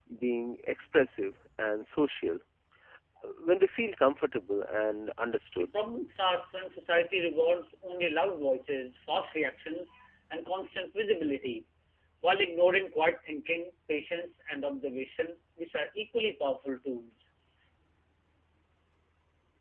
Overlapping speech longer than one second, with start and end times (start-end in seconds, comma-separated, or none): none